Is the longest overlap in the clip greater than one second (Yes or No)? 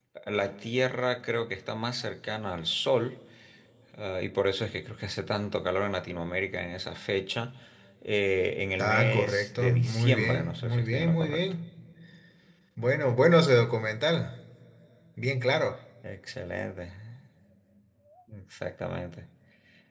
Yes